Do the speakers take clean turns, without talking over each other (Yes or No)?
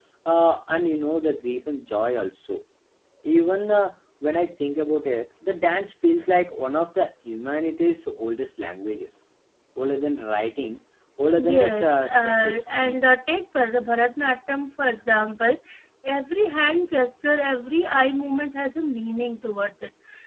No